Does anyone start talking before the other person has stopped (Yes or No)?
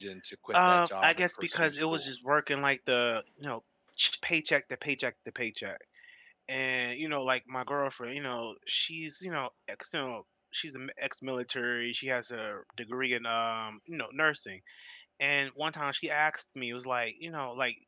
Yes